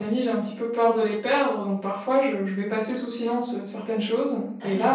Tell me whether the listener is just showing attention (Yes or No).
Yes